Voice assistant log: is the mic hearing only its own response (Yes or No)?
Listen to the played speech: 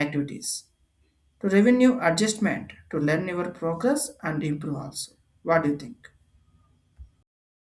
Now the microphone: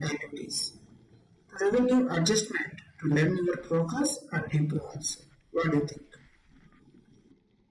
Yes